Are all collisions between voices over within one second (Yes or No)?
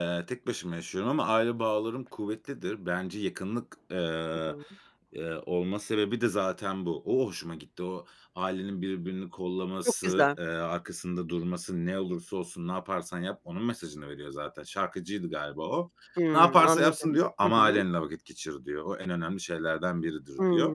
No